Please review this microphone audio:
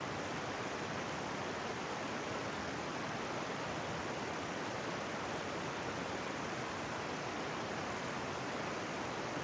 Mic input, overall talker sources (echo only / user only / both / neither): neither